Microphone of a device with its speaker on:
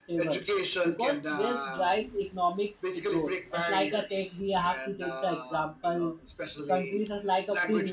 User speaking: Yes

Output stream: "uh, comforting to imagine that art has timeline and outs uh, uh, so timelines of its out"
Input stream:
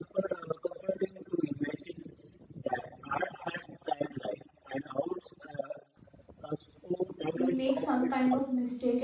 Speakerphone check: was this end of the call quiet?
No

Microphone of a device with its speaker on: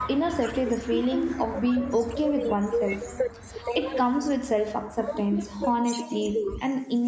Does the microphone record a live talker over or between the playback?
Yes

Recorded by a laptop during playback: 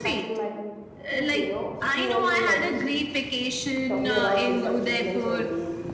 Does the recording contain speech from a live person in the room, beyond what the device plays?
Yes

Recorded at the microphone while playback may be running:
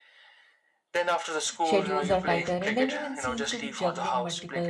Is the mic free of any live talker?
No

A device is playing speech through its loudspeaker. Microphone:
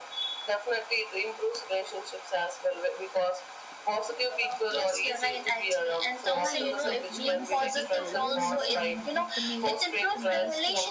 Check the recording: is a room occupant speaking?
Yes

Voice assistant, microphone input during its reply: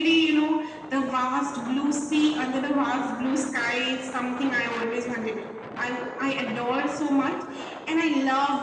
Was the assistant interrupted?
No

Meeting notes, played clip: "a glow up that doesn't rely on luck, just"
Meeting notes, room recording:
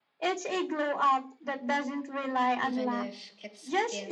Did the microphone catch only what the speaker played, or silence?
No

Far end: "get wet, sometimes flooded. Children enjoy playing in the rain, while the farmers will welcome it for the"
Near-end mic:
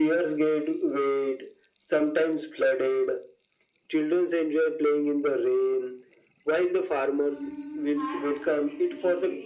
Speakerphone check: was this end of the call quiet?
No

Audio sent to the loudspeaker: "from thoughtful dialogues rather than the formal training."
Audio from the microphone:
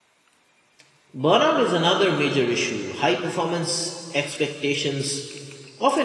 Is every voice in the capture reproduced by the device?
No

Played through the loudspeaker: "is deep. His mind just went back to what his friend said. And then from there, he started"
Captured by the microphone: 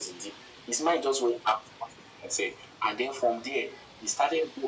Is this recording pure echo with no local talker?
Yes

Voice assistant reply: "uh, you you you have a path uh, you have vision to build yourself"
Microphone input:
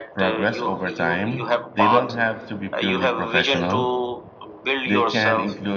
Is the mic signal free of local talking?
No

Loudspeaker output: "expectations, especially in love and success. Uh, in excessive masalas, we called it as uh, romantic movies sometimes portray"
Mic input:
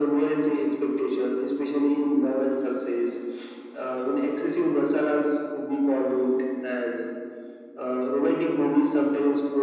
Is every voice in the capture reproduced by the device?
Yes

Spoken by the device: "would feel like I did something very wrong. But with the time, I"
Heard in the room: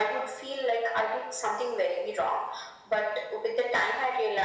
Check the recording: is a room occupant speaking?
No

